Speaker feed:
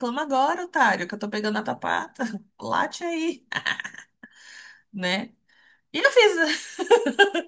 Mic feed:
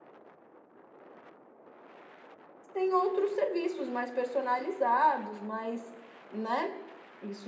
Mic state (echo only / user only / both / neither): user only